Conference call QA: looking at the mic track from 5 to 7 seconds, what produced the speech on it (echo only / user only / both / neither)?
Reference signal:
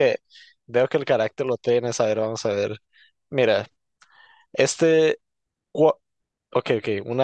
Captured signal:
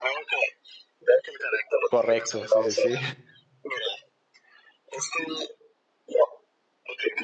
echo only